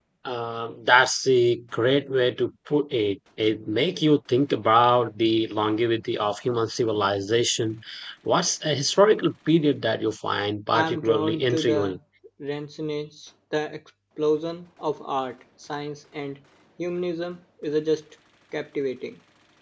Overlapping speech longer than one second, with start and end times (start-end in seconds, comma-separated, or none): 10.7-12.0